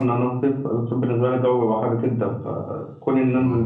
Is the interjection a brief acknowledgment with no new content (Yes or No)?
Yes